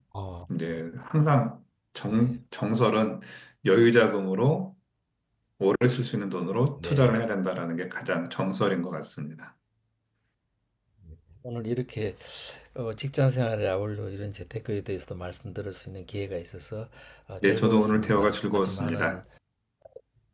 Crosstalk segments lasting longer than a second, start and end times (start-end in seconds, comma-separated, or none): 17.4-19.2